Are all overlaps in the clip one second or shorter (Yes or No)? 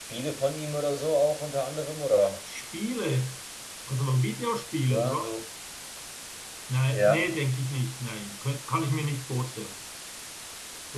Yes